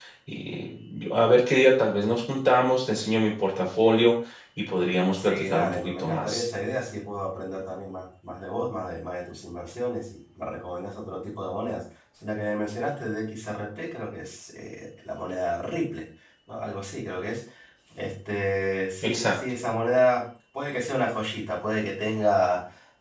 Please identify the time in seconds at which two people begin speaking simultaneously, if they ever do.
5.2 s

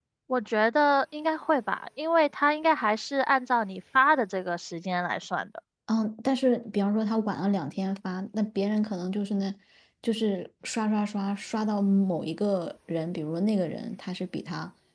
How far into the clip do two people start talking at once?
none

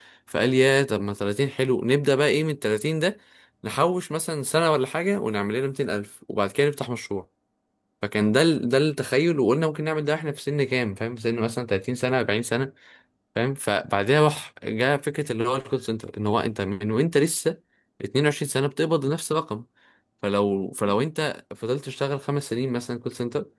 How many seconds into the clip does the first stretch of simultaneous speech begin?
none

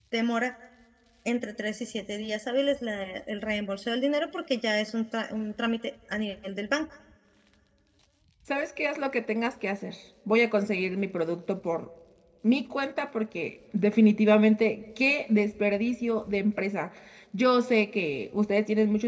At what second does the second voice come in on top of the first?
none

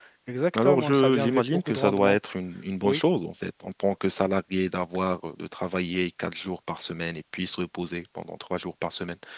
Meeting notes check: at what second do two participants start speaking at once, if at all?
0.6 s

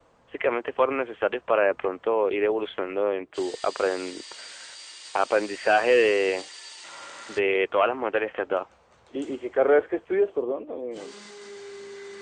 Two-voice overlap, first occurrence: none

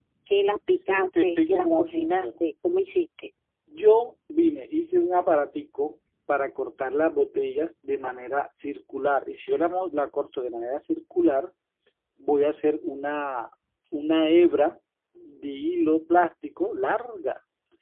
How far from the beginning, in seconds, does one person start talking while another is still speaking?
1.2 s

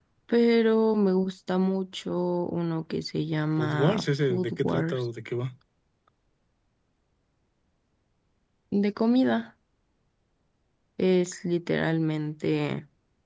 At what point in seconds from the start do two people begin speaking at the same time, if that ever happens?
3.6 s

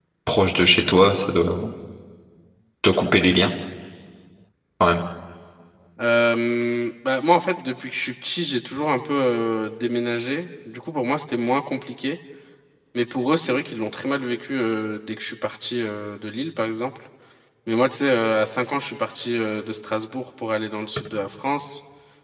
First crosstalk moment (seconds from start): none

